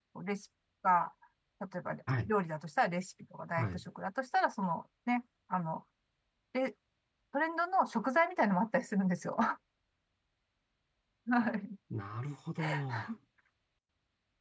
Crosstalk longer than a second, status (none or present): none